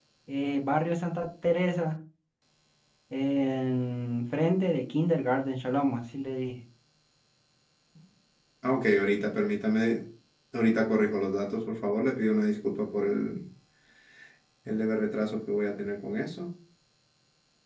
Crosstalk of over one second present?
No

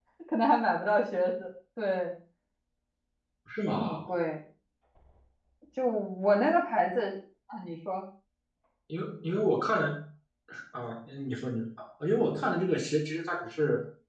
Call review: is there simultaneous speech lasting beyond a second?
No

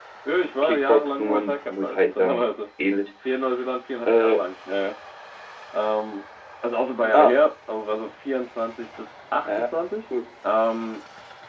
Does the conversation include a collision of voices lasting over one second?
Yes, from 0.6 s

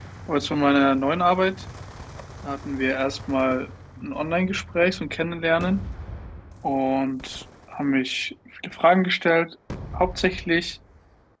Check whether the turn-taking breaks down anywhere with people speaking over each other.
No

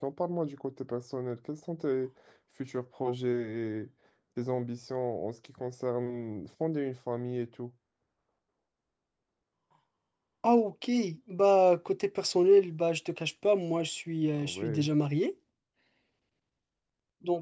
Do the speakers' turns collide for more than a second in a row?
No

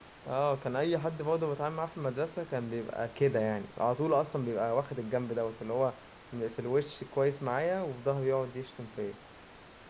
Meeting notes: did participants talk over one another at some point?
No

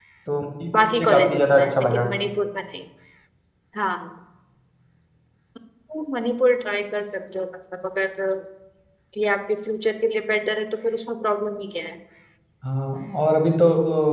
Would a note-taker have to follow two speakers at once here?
Yes, from 0.7 s

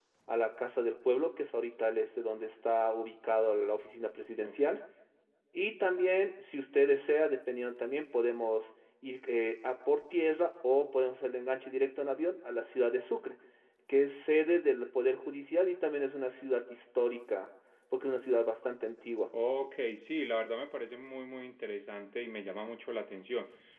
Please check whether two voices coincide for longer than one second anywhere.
No

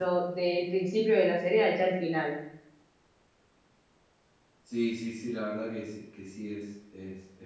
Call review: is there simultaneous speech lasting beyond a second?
No

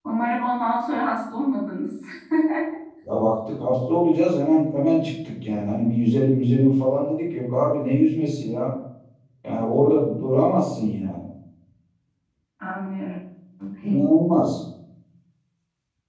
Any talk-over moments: No

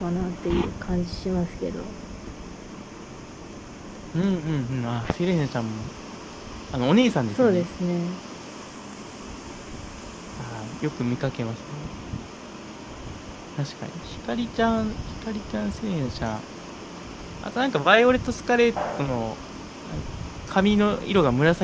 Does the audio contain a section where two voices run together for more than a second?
No

